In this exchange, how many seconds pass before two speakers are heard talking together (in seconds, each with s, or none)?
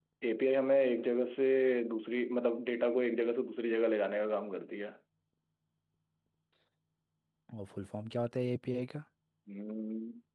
none